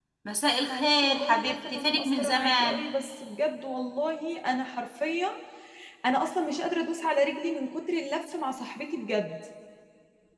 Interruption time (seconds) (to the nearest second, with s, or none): 1 s